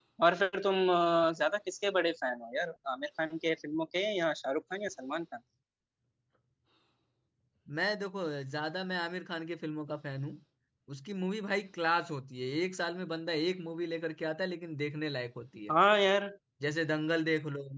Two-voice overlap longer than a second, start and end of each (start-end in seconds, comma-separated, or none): none